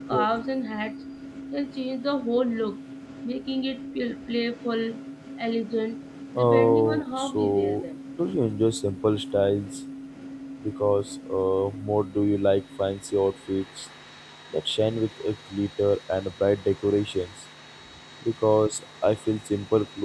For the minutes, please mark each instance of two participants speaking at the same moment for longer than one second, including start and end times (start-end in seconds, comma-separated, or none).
6.3-7.8